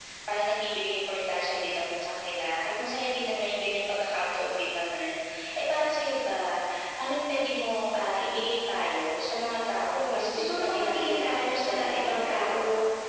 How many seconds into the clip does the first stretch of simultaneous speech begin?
10 s

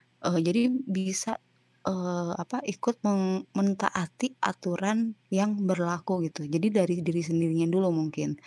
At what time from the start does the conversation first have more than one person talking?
none

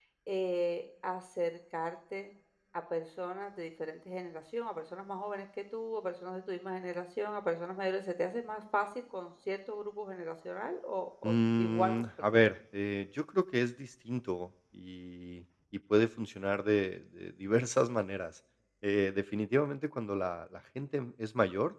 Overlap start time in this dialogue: 11 s

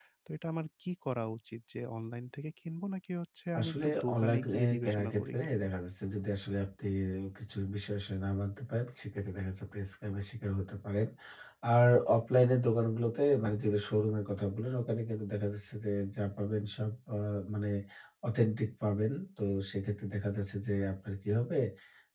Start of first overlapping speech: 4 s

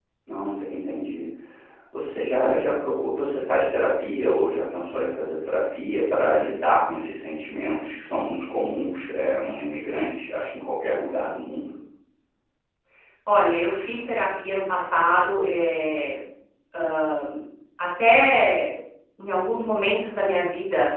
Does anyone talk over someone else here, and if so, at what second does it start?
none

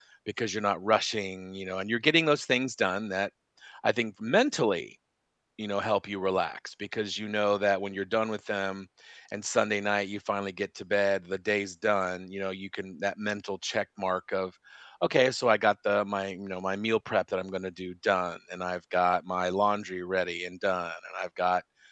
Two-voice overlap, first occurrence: none

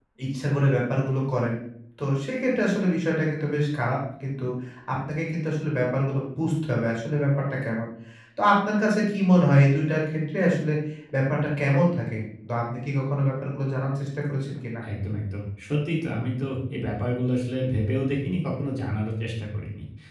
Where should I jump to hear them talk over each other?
none

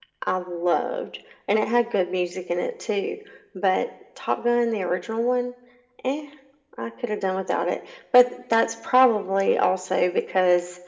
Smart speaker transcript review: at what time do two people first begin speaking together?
none

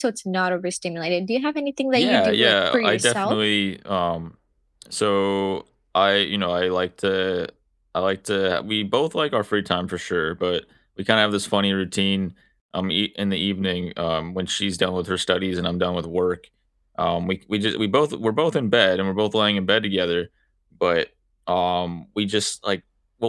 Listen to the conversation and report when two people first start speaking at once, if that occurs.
2 s

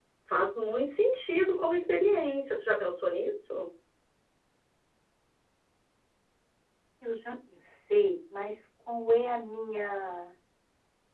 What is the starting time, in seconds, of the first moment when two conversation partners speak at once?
none

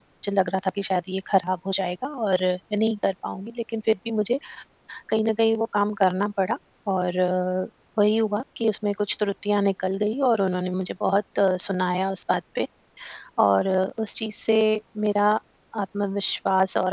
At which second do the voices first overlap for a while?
none

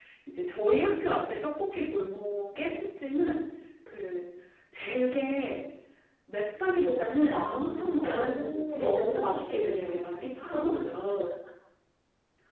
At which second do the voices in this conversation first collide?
7 s

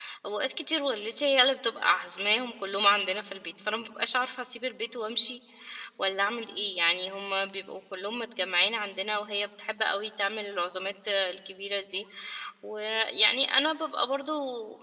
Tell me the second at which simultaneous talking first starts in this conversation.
none

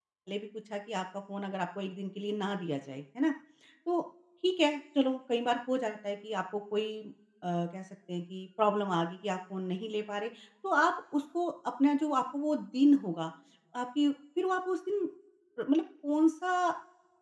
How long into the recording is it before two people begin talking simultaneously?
none

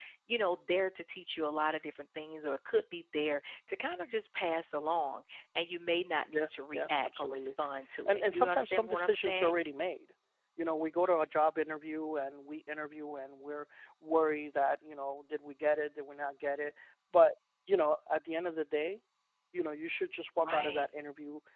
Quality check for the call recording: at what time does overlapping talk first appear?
6 s

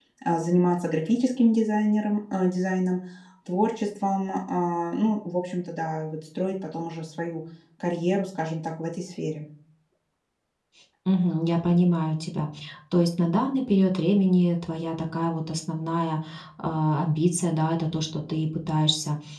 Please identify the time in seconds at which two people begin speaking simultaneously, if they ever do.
none

